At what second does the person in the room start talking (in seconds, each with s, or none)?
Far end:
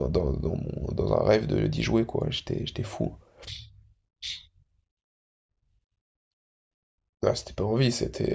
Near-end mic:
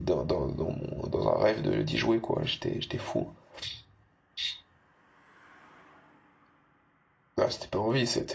none